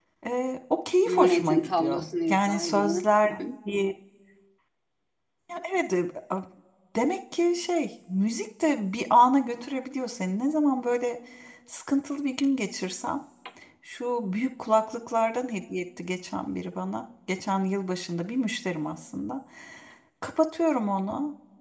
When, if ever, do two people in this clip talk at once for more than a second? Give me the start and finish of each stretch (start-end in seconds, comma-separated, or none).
1.1-3.0